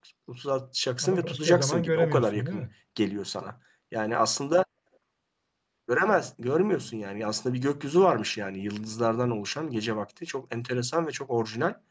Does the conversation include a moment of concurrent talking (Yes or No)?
Yes